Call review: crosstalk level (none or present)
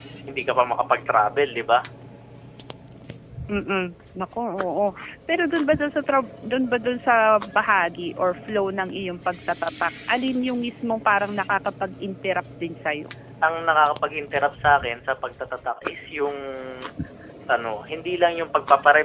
none